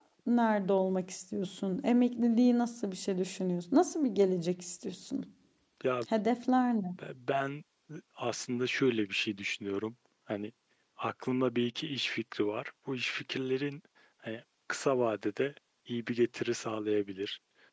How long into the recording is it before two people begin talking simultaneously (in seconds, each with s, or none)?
none